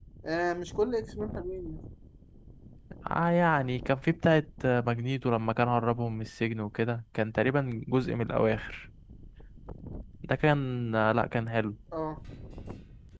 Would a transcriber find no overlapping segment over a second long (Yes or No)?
Yes